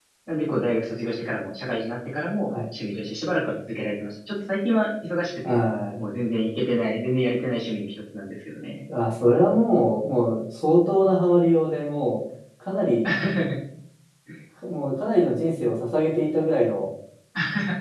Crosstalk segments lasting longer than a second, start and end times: none

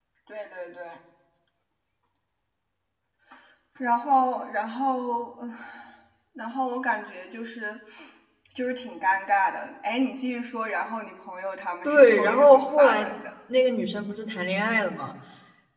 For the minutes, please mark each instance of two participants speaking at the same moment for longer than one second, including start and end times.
11.8-13.1

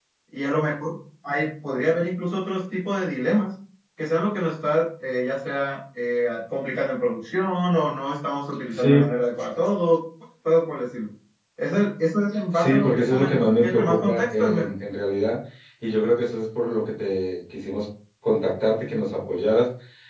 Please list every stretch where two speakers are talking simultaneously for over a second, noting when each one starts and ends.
12.5-14.7

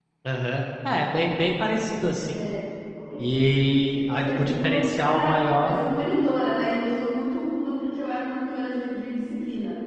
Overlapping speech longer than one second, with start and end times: 4.1-5.8

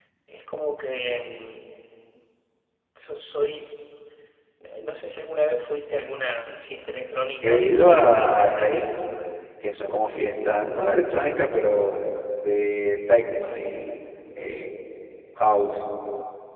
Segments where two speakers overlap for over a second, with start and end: 7.4-8.8

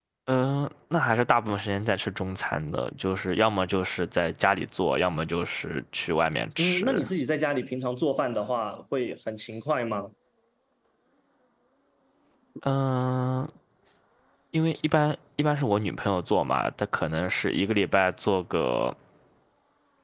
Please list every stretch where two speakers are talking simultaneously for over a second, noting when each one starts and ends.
none

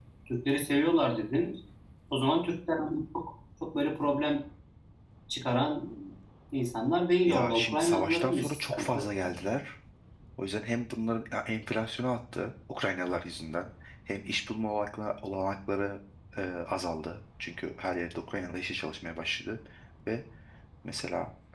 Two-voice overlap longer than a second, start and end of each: 7.3-9.0

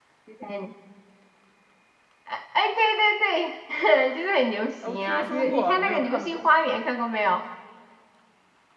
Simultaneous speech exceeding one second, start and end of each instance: 4.9-6.5

